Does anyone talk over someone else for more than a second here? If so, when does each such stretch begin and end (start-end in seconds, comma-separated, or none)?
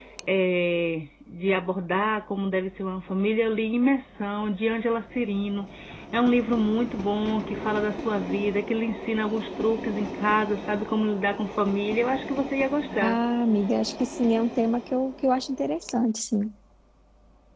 none